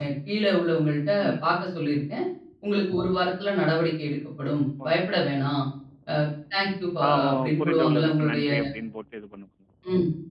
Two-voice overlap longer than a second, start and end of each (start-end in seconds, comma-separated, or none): 7.1-8.5